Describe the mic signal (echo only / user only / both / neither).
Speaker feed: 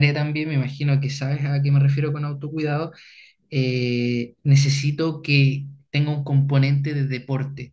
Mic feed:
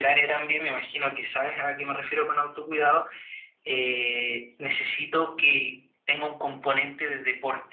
echo only